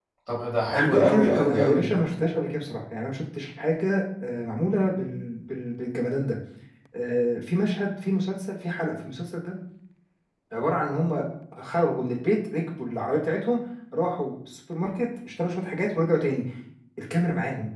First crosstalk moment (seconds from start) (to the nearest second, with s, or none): 1 s